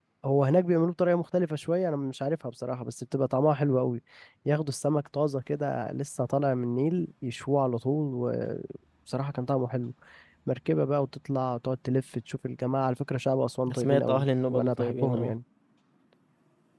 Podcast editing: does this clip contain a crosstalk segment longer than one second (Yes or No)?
Yes